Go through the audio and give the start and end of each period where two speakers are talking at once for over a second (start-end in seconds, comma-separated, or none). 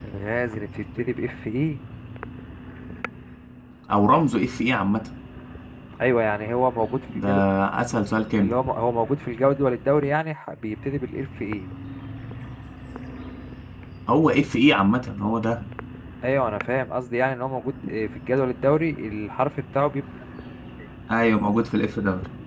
none